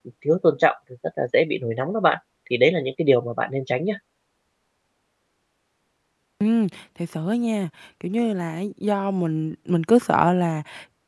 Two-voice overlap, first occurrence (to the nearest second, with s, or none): none